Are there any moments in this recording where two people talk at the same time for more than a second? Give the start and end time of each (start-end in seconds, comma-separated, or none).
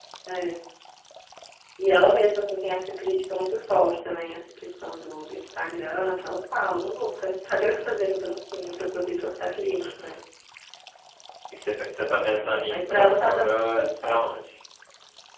12.3-14.2